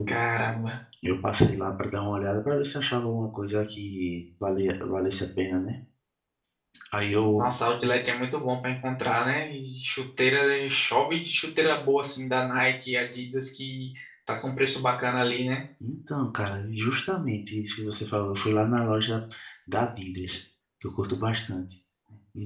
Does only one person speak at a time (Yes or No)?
Yes